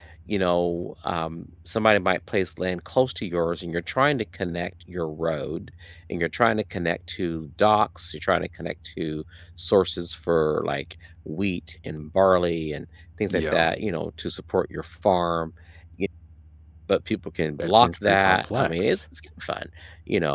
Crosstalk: present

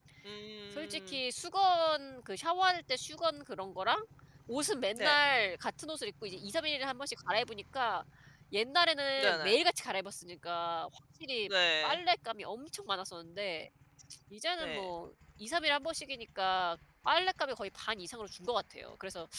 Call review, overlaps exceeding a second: none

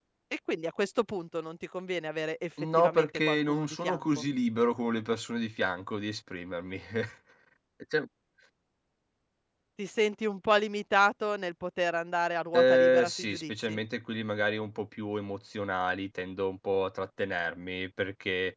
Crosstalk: present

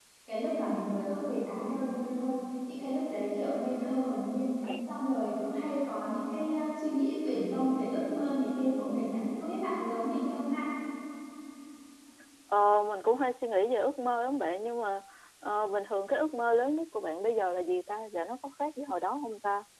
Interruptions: none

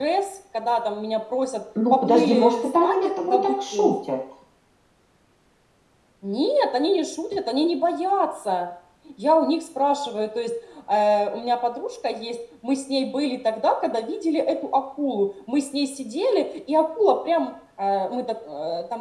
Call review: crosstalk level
present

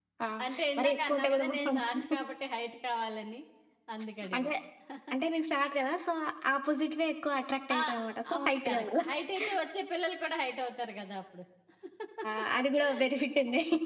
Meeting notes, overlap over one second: present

